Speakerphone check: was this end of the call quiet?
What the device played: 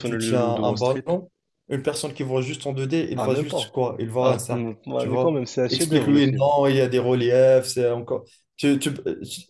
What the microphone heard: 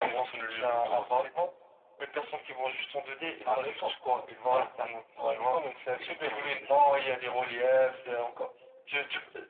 Yes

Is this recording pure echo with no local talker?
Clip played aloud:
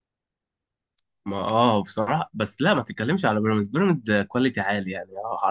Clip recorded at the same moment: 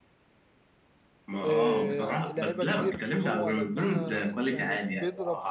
No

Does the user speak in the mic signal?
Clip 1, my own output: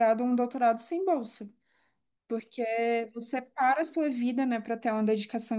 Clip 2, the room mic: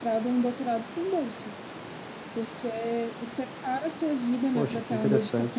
Yes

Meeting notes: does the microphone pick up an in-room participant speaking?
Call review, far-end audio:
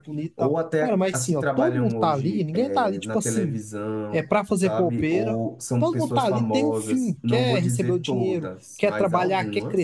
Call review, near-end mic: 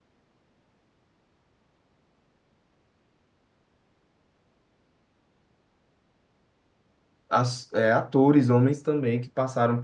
Yes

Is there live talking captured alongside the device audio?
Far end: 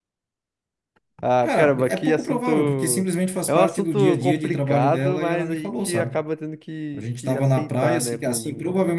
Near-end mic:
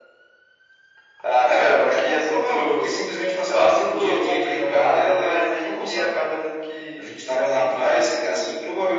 No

